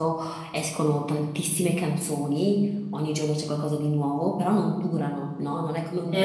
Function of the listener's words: listening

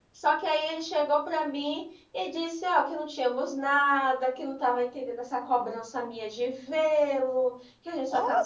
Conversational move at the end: listening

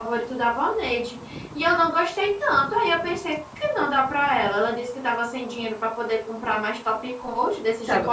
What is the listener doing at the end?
taking over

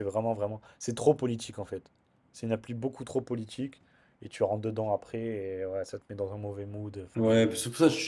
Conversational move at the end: taking over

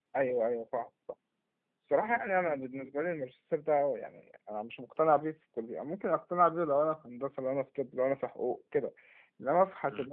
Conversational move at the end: listening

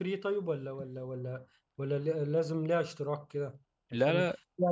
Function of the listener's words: listening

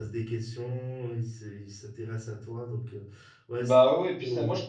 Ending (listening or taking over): taking over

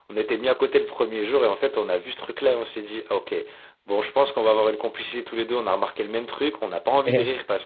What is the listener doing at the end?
listening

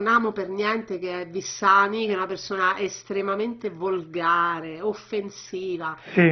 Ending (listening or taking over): listening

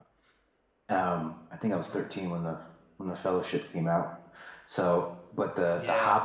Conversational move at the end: listening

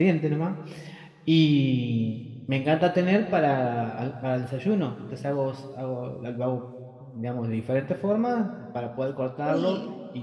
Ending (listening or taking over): listening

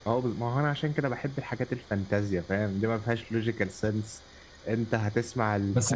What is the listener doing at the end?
taking over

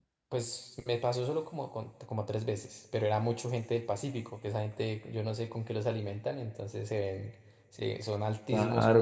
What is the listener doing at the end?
listening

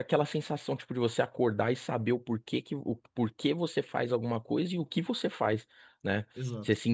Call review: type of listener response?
listening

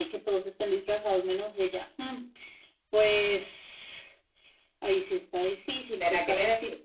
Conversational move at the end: taking over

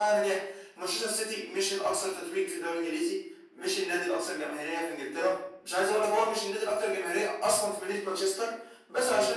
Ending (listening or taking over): listening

